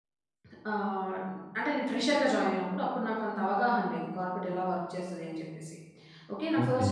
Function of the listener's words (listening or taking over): listening